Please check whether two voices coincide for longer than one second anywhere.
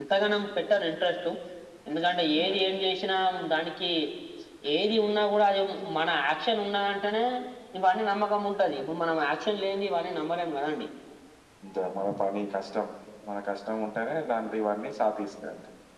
No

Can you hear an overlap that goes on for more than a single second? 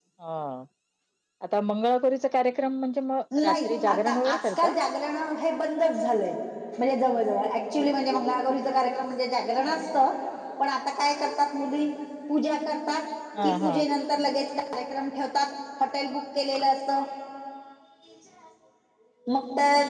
Yes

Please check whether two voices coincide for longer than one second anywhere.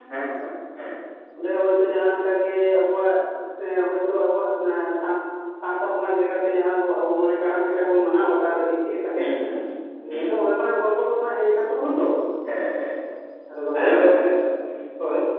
No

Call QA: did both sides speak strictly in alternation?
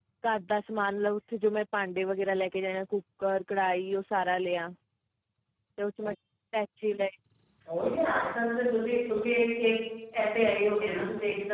Yes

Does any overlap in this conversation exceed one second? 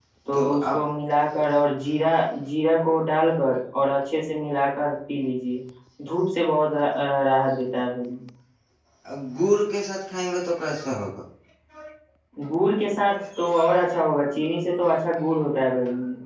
No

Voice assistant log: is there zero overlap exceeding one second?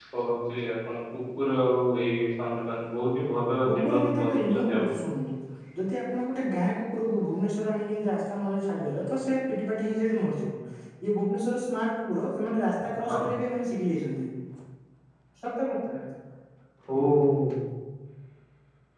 No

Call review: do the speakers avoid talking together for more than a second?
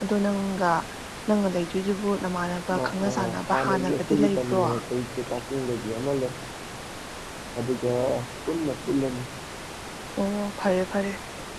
No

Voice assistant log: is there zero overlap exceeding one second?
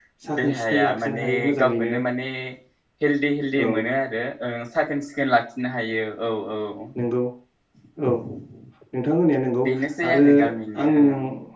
No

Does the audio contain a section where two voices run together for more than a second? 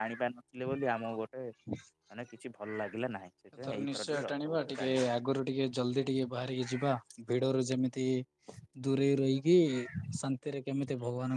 Yes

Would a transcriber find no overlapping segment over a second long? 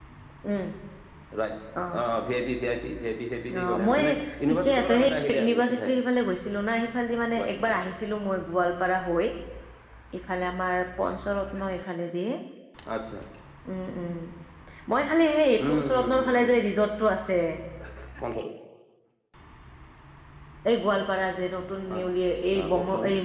No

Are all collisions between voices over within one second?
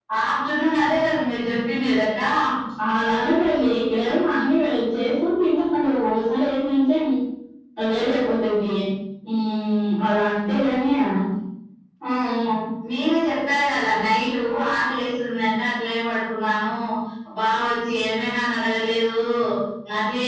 Yes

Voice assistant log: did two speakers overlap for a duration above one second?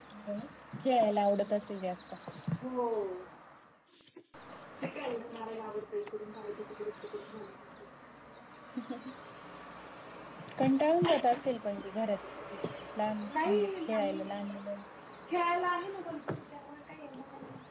Yes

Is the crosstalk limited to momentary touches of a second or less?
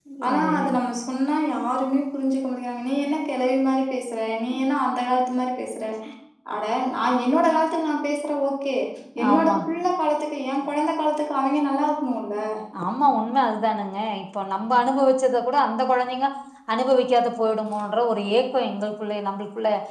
Yes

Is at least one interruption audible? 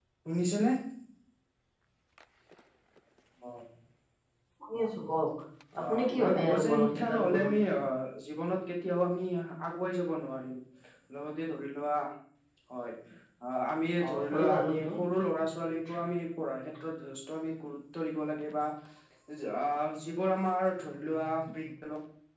Yes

